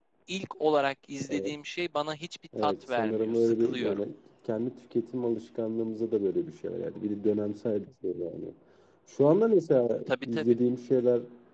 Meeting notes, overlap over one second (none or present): present